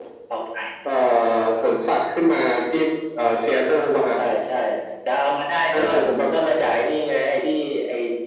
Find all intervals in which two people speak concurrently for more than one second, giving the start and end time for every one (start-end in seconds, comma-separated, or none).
none